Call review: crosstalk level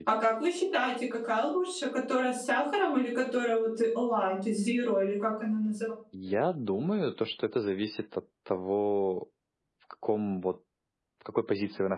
none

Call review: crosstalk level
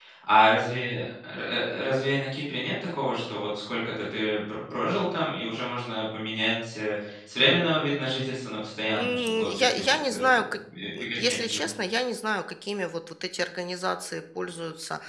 present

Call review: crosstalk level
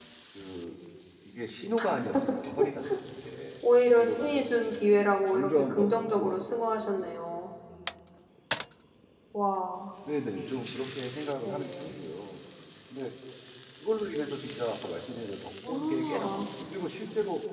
present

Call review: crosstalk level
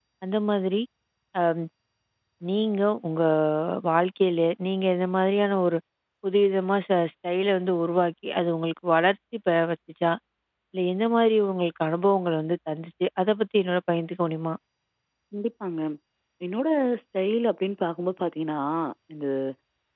none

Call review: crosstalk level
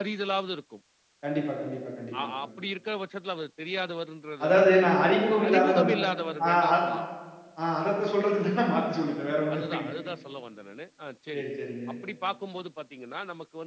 present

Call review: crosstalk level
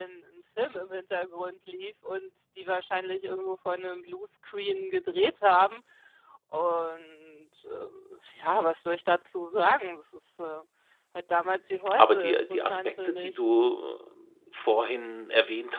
present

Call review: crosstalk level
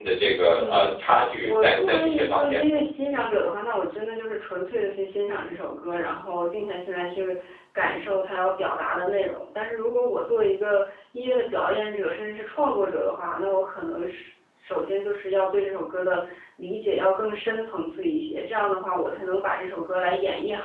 present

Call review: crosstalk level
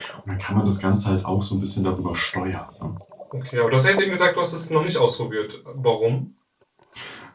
none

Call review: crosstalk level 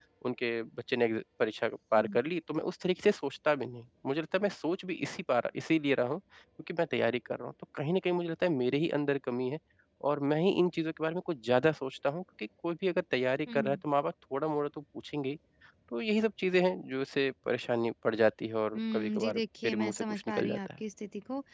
present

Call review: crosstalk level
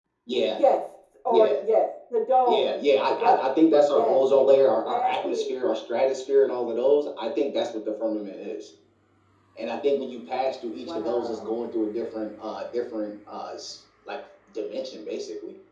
present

